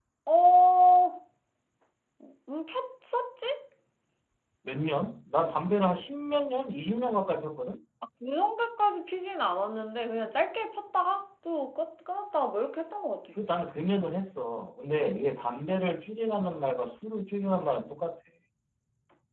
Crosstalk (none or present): none